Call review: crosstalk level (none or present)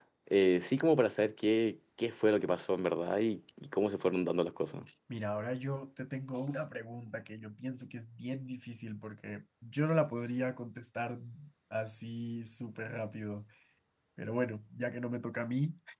none